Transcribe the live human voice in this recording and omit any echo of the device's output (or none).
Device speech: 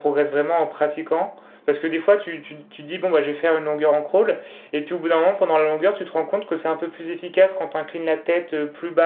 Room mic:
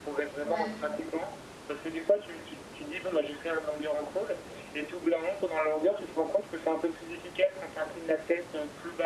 Ouais,